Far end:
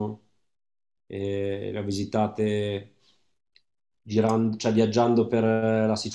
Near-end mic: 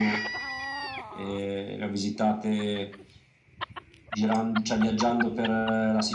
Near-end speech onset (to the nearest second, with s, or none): none